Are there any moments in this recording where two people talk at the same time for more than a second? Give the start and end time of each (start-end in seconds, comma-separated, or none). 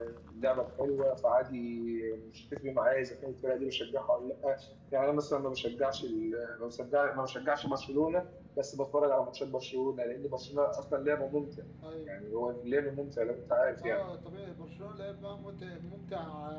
none